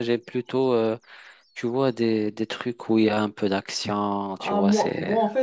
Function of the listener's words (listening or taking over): taking over